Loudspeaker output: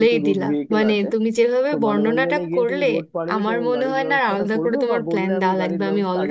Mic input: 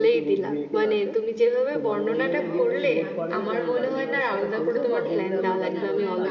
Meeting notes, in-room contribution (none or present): present